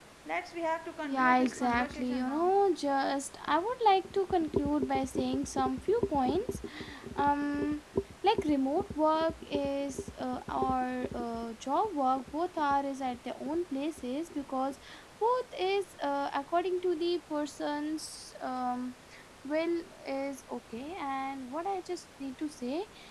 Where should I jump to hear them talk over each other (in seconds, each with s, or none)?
1.0 s